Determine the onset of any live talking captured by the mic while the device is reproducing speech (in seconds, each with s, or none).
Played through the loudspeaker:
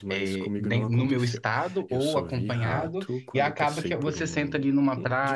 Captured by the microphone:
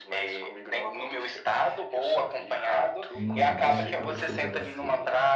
3.1 s